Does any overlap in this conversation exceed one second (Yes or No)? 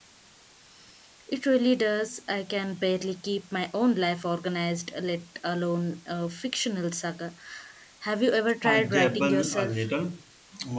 Yes